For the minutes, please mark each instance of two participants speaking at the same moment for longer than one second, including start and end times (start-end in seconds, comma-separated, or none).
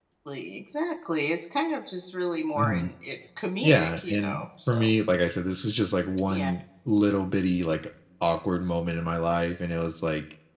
3.6-4.9